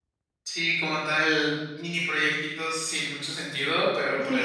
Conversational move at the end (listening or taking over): listening